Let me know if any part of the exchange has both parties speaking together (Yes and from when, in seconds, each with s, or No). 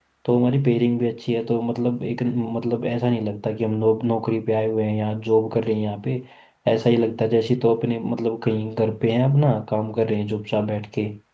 No